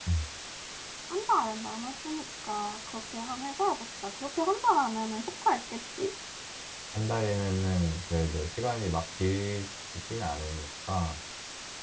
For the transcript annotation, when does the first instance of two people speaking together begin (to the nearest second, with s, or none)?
none